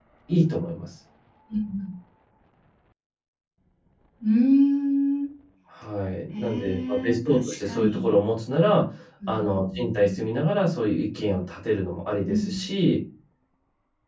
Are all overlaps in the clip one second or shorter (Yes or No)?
No